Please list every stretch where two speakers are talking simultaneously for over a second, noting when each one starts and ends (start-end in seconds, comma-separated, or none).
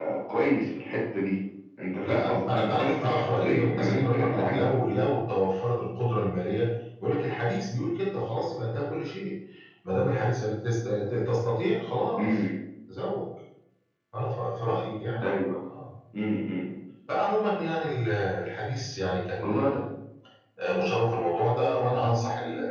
2.0-4.7